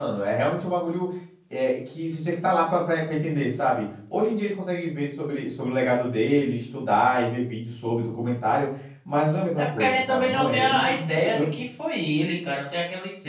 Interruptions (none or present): present